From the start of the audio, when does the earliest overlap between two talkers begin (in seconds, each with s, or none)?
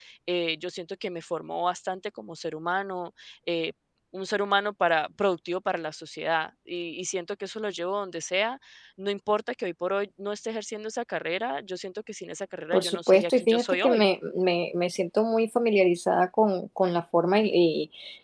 12.7 s